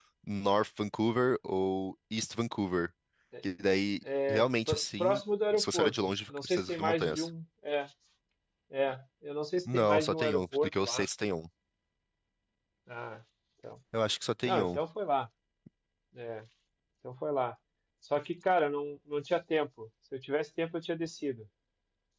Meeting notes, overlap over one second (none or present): present